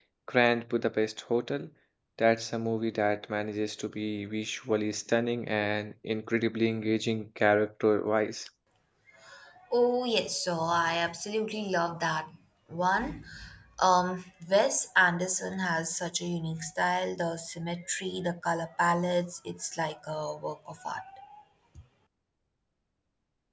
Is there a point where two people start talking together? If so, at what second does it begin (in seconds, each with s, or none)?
none